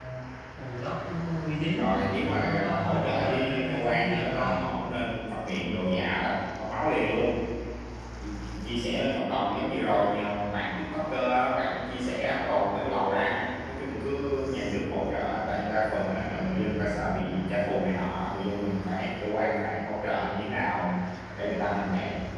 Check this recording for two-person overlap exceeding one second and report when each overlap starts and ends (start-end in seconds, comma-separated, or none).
2.4-4.6